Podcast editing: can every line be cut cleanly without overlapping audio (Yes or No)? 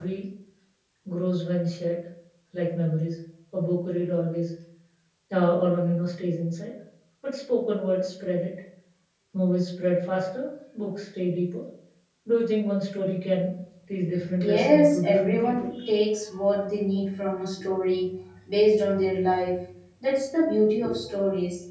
No